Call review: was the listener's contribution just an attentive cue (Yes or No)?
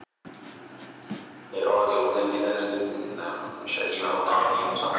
No